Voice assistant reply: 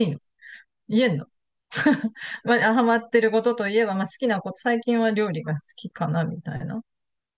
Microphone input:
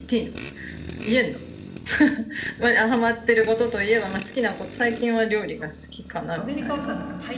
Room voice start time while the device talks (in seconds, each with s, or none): 6.3 s